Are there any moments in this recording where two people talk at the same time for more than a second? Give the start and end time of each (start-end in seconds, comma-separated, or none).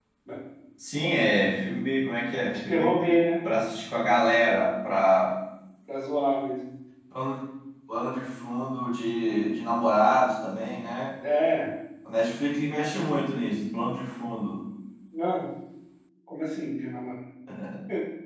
none